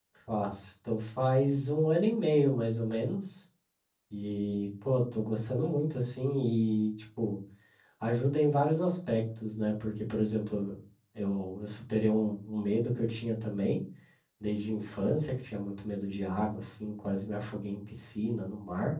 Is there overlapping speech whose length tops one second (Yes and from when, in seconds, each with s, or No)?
No